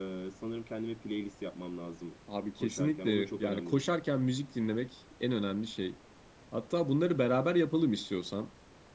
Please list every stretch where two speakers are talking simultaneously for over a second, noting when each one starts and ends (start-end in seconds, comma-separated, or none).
2.6-3.9